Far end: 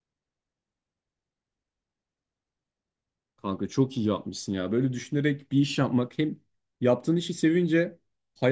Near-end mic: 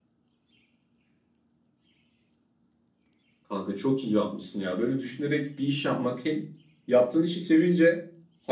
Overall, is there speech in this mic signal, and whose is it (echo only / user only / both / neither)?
echo only